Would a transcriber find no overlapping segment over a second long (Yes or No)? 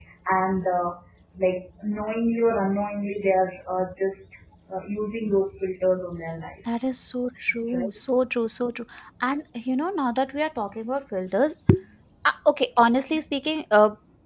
Yes